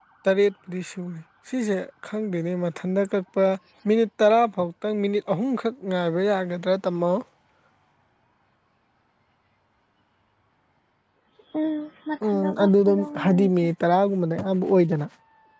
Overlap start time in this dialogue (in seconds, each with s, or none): 12.2 s